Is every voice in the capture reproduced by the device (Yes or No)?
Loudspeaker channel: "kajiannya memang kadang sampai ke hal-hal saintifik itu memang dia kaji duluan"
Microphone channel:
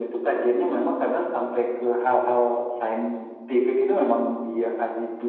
Yes